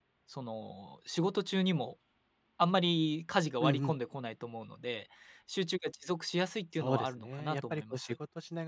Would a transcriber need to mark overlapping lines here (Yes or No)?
Yes